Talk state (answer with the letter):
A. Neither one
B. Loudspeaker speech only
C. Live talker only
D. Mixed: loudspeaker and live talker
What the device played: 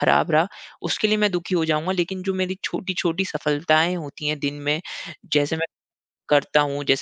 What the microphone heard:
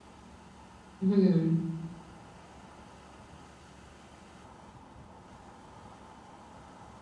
C